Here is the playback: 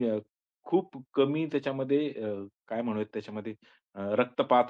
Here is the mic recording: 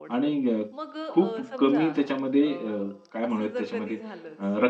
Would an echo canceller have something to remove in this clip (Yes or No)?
Yes